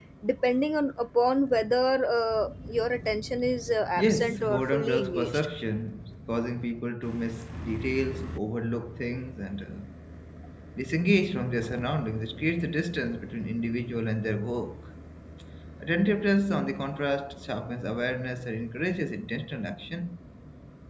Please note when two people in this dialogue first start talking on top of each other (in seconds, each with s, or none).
4.0 s